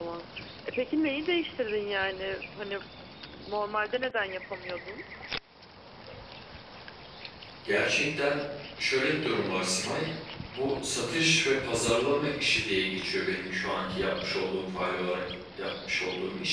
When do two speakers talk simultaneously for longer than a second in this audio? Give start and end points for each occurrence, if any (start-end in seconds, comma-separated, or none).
none